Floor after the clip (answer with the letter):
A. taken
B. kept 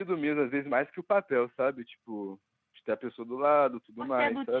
A